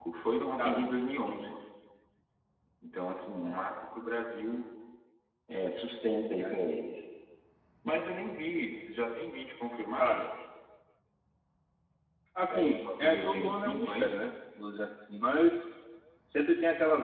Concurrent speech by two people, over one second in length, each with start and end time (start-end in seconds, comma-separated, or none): 12.5-14.1